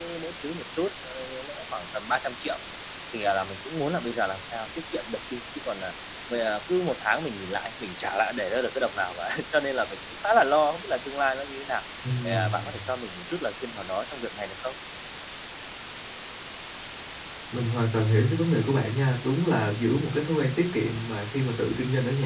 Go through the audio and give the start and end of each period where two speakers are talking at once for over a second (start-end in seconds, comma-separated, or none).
none